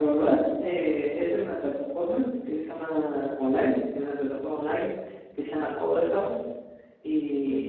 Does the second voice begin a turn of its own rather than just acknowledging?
No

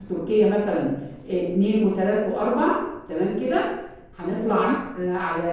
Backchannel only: Yes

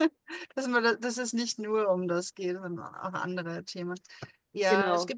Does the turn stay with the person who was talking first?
Yes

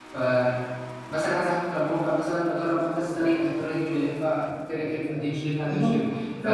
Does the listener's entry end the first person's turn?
No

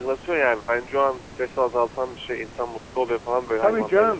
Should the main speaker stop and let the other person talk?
Yes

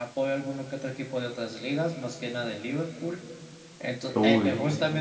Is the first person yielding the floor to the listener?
No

